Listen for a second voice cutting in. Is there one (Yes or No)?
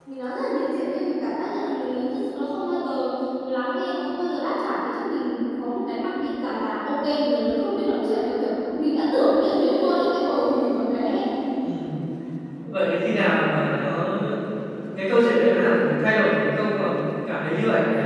No